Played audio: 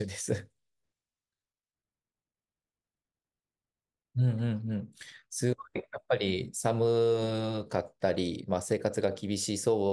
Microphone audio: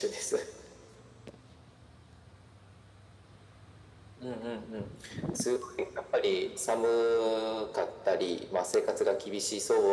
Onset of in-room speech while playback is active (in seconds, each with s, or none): none